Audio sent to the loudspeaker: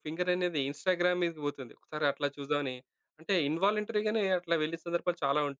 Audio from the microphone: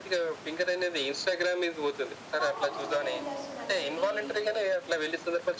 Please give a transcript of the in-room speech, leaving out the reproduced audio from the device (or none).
కానీ కొన్నిసార్లు ఏం జెస్తుందంటే ఈ